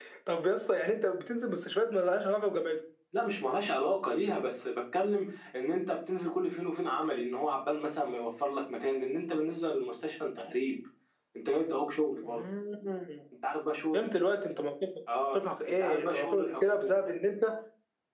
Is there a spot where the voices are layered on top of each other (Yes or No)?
Yes